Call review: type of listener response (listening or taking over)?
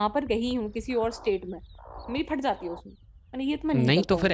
taking over